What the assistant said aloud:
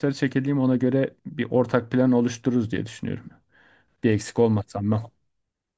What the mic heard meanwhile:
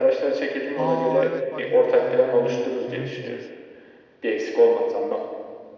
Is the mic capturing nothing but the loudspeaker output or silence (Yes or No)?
No